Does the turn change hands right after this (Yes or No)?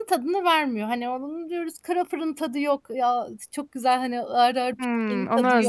Yes